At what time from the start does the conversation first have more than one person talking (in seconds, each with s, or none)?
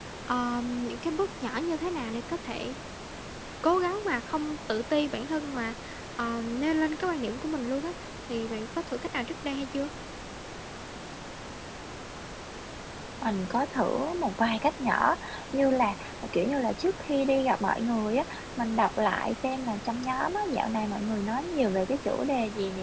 none